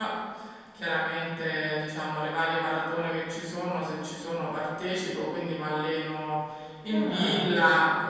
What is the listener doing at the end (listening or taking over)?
listening